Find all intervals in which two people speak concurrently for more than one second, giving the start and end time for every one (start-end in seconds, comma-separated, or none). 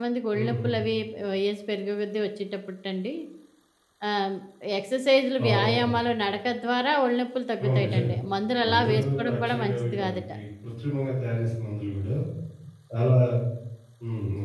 8.7-10.2